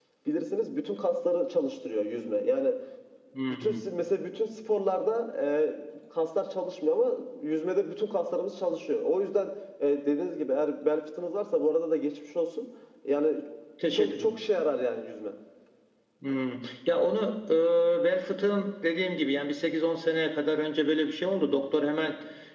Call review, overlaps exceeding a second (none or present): none